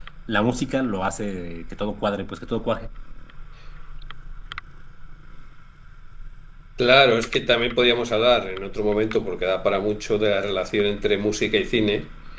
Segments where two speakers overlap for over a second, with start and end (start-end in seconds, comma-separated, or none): none